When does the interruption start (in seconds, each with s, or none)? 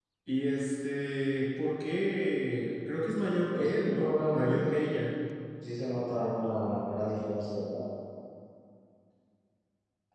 3.5 s